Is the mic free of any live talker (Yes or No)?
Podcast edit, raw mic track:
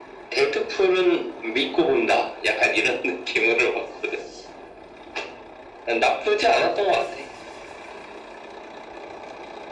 Yes